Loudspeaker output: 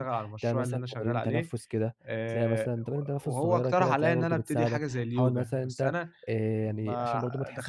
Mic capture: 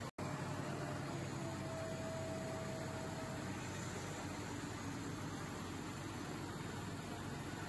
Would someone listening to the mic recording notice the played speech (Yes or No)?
No